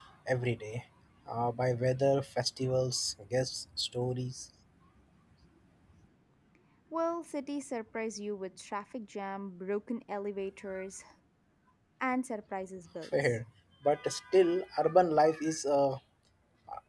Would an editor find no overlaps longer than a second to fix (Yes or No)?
Yes